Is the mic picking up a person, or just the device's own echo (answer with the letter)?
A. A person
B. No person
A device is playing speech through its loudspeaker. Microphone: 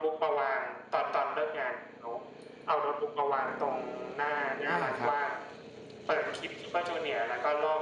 A